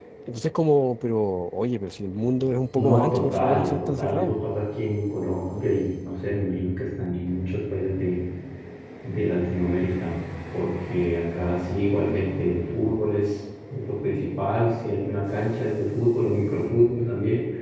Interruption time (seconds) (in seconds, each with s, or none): 2.8 s